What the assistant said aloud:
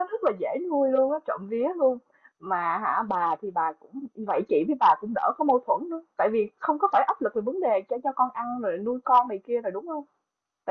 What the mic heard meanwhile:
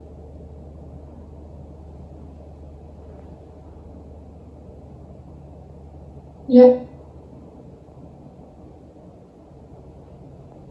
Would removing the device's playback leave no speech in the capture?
No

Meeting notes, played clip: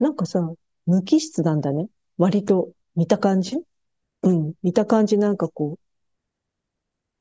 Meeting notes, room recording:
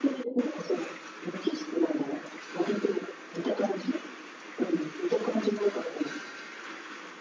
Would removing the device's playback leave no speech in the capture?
Yes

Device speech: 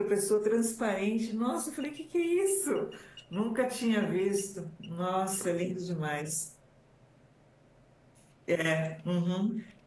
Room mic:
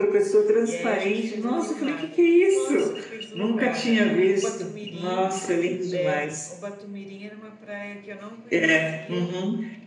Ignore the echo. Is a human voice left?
Yes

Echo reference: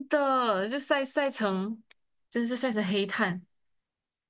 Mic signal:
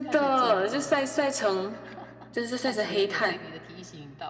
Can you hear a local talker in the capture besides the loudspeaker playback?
Yes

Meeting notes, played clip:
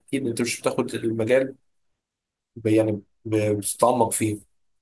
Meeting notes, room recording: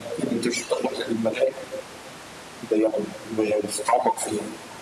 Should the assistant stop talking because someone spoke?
No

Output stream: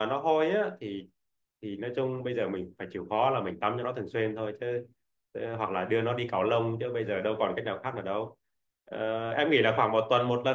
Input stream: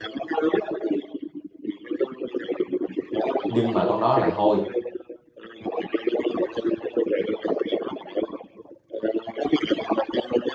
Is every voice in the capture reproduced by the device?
No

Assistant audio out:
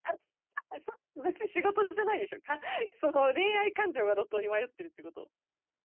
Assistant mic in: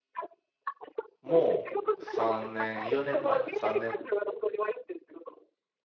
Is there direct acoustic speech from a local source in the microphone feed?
Yes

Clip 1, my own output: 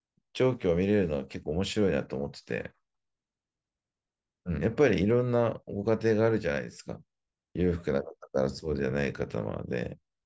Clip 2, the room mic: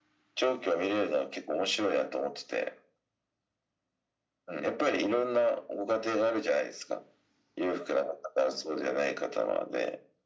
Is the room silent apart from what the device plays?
Yes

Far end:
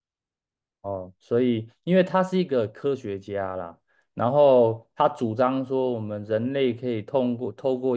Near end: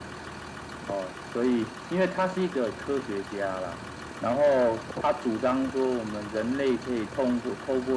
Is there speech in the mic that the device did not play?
No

